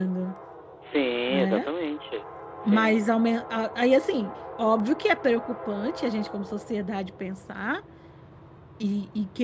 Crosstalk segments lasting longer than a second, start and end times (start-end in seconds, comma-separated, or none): none